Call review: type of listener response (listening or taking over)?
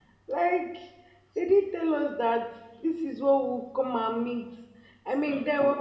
listening